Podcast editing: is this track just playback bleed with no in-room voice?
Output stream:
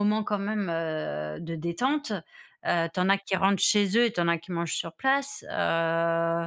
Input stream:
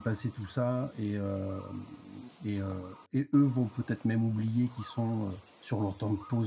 No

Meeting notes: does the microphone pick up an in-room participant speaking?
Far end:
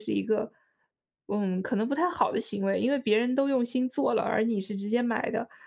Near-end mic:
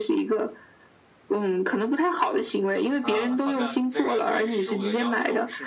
Yes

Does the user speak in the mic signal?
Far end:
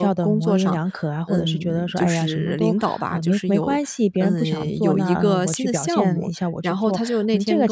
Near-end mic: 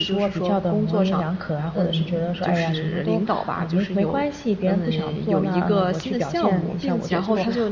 Yes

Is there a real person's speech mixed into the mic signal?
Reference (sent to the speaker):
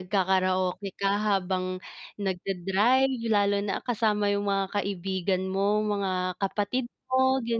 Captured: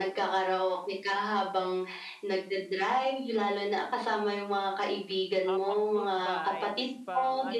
Yes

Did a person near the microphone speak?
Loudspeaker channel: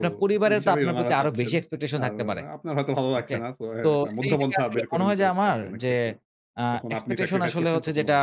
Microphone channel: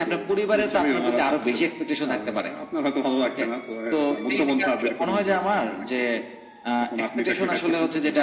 No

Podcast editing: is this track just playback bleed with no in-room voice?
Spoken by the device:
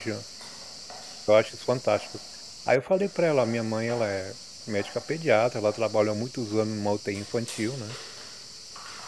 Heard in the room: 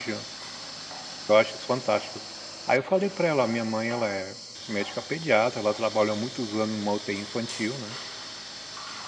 Yes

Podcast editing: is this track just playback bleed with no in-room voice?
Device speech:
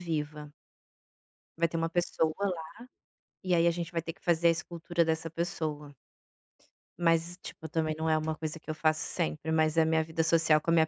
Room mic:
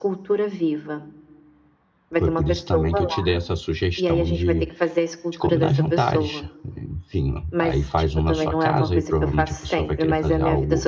No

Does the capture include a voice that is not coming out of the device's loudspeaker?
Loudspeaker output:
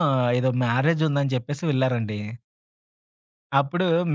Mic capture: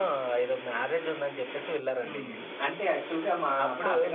Yes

